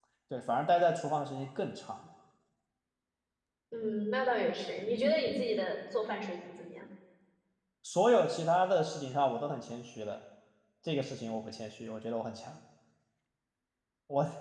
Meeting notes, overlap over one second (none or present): none